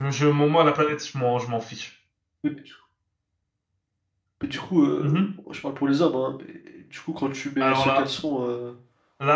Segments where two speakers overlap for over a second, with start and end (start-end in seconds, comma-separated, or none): none